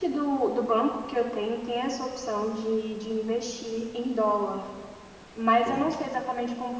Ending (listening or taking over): listening